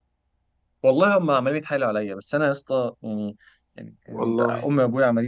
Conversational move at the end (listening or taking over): listening